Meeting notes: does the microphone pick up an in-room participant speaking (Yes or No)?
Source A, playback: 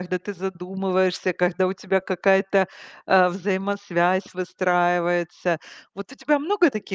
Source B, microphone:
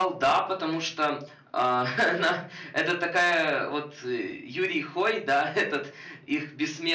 Yes